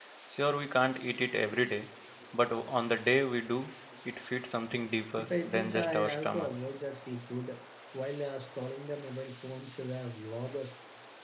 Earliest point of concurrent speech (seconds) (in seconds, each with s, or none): 5.2 s